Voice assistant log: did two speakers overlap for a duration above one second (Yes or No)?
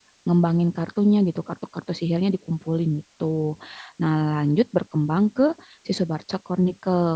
No